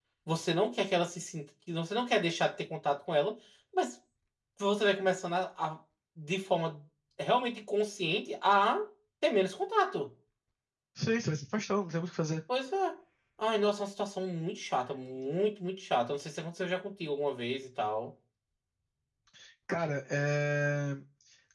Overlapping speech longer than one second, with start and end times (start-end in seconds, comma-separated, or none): none